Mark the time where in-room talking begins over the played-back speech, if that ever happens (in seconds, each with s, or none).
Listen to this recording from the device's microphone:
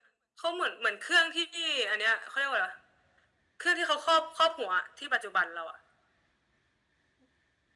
none